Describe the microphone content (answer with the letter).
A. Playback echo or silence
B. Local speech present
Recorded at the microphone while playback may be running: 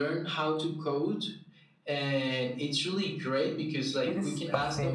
B